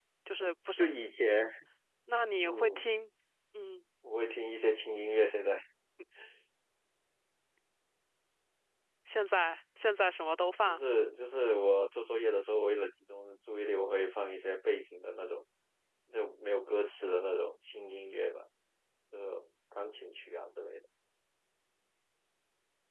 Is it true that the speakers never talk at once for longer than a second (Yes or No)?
Yes